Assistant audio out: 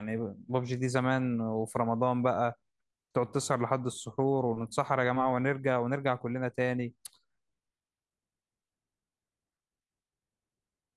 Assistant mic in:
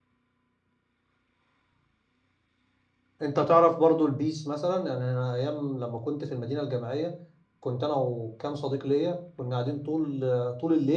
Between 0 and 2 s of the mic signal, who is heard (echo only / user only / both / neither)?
neither